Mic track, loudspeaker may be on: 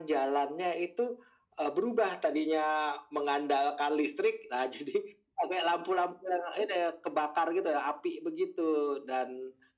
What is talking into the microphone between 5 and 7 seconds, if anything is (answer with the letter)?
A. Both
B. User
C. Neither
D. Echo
D